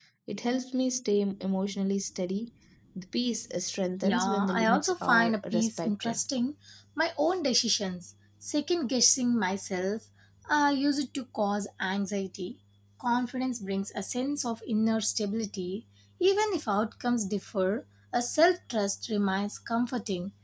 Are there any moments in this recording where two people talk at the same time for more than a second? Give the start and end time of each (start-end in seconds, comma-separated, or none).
4.0-6.2